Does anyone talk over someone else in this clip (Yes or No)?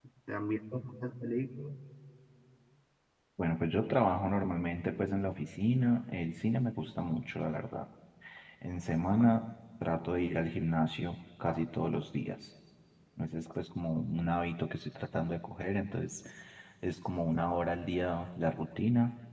No